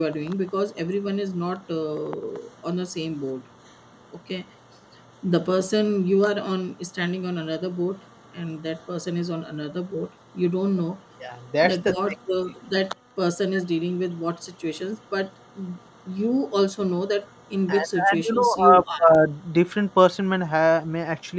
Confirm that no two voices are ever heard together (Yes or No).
No